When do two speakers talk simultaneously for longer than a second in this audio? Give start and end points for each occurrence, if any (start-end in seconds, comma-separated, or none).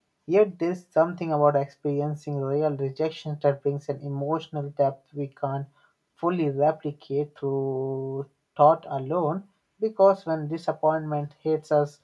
none